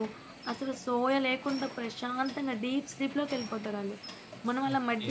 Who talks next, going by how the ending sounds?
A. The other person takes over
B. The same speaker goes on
A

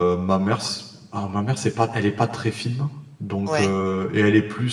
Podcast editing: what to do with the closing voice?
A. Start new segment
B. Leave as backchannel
B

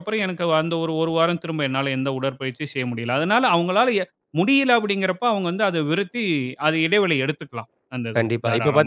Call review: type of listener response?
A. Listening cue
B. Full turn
B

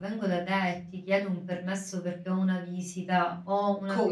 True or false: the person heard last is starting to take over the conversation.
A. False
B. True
A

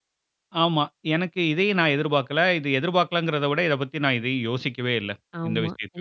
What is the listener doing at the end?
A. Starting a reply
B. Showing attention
A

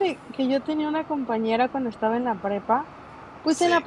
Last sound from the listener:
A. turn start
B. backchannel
B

